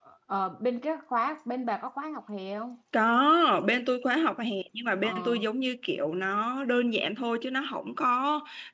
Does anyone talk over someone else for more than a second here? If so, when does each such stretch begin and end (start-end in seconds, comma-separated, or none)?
none